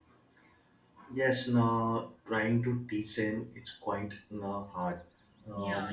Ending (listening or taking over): listening